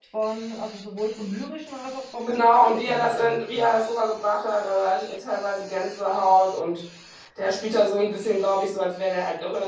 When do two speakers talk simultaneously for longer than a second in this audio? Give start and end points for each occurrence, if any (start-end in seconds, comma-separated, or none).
2.3-3.6